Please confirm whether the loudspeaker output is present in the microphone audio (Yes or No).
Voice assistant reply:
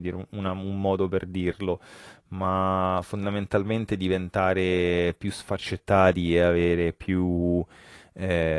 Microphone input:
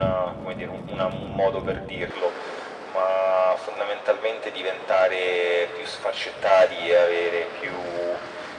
Yes